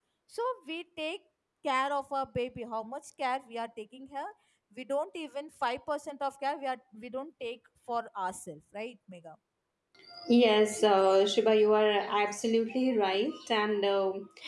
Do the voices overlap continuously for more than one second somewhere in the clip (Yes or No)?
No